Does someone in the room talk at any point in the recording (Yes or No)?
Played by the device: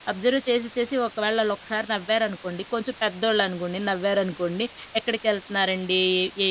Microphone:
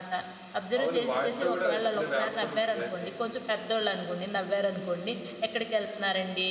Yes